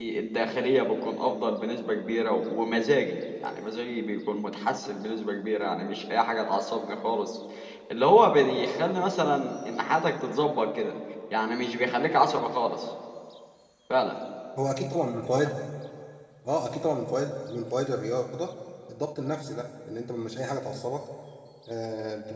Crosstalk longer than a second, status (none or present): none